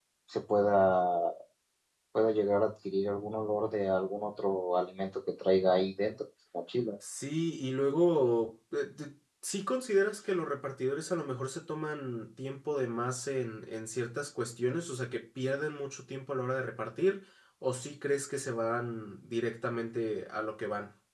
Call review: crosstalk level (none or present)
none